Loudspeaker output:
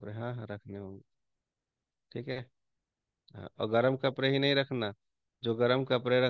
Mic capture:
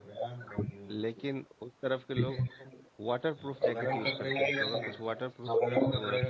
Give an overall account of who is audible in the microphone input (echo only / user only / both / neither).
both